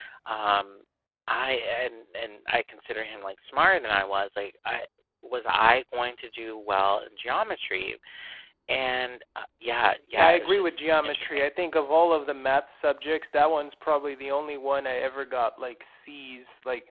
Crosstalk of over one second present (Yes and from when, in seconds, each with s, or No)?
Yes, from 10.1 s